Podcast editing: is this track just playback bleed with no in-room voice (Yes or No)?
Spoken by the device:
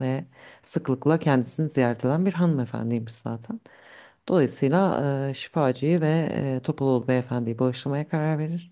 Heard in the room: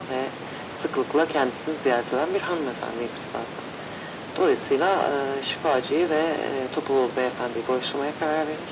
Yes